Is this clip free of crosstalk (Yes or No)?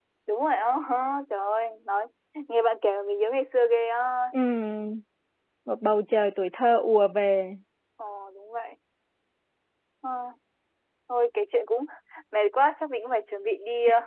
Yes